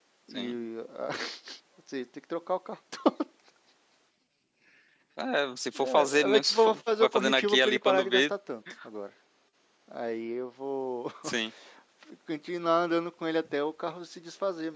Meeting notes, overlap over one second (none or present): present